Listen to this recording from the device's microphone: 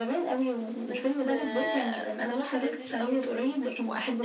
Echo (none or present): present